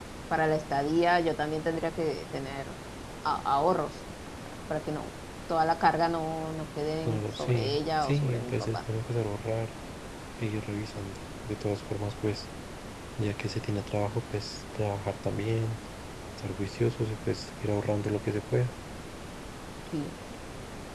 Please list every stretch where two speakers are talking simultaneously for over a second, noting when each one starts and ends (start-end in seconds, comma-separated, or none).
7.0-8.8